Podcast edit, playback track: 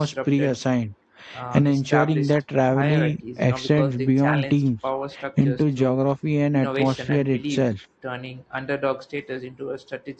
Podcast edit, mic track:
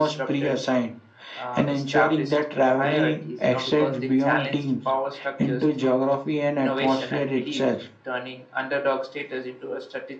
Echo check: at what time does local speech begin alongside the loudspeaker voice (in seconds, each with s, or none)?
none